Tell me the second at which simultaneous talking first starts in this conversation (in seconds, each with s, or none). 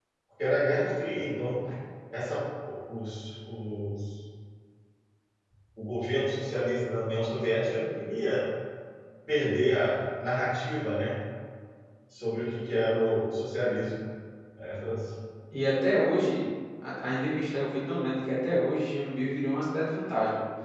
none